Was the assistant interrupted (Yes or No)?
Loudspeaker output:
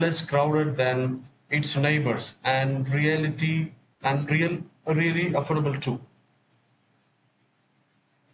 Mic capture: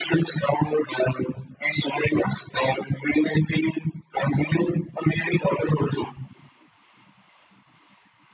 No